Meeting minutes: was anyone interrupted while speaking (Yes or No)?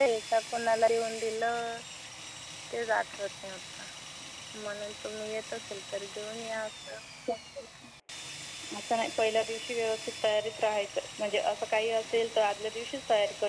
No